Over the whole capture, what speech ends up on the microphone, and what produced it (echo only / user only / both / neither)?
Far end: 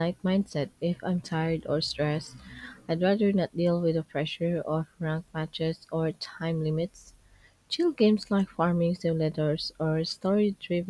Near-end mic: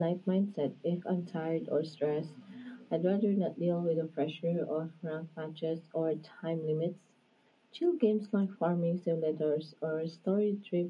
echo only